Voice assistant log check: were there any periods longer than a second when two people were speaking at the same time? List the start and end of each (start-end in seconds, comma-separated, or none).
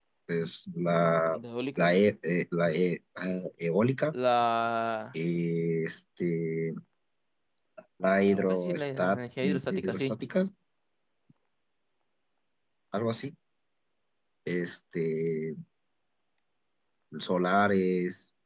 8.3-10.2